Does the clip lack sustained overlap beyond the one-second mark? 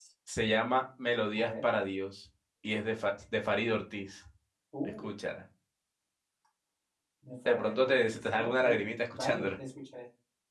No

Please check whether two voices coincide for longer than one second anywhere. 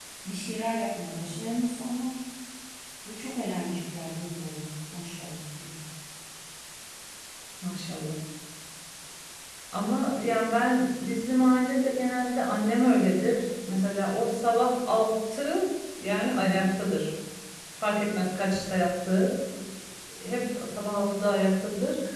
No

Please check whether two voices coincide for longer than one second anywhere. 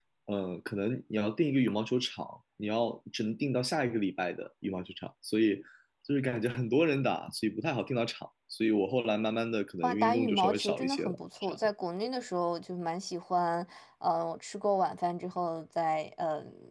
Yes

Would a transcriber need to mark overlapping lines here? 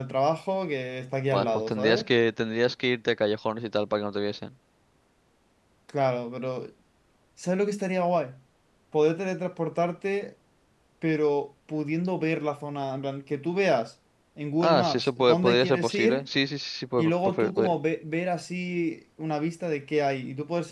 Yes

